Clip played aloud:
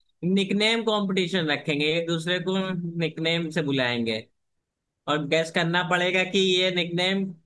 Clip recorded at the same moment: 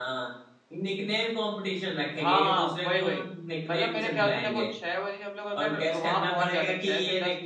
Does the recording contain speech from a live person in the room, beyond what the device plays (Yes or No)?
Yes